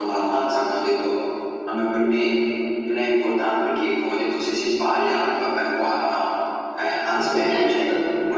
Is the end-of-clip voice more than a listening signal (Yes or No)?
No